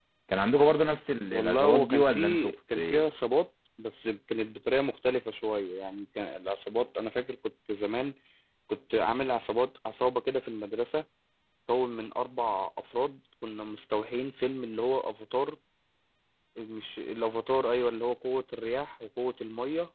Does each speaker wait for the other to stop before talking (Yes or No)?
No